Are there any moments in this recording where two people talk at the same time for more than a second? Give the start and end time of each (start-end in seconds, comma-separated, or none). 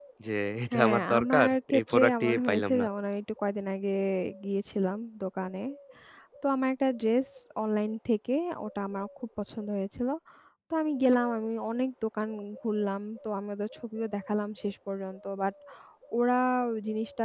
0.7-2.8